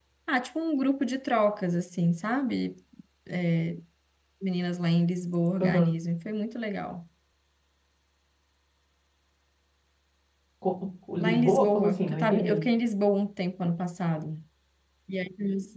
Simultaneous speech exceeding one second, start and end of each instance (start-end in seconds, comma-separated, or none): 11.2-12.6